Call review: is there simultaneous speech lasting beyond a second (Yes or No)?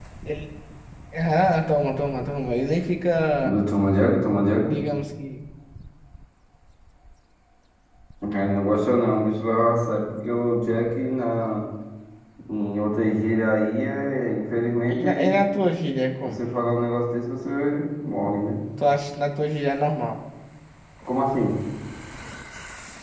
No